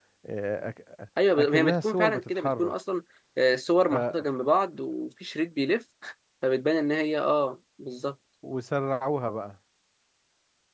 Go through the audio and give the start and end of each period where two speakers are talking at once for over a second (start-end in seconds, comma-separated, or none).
1.4-2.7